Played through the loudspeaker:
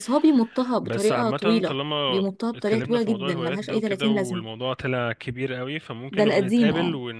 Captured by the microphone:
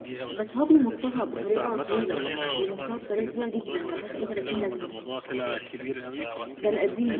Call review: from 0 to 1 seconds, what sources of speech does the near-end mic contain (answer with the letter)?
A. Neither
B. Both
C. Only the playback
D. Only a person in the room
B